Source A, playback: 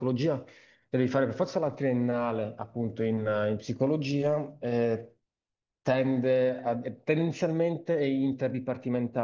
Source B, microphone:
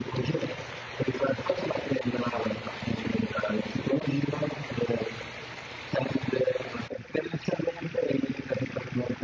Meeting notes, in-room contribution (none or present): none